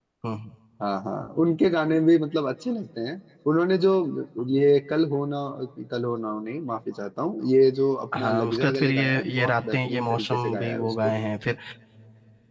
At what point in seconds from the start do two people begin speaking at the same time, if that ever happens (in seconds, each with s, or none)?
8.1 s